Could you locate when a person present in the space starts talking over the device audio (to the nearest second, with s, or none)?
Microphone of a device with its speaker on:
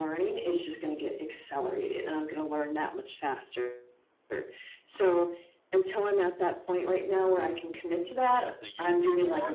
8 s